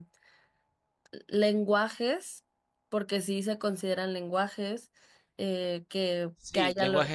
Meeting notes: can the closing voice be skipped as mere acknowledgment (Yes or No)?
No